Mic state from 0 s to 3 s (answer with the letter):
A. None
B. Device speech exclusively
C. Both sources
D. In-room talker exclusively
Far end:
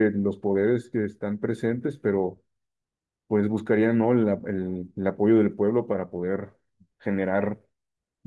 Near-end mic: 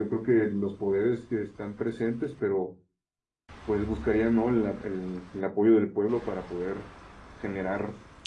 B